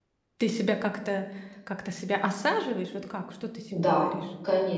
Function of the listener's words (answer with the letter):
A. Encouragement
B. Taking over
B